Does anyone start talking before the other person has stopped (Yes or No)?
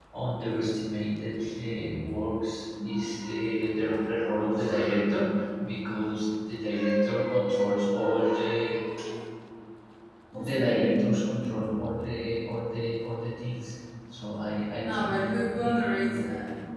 Yes